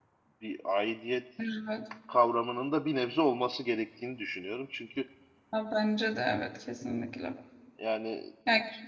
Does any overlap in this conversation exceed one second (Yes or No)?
No